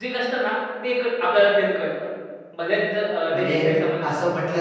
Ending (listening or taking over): taking over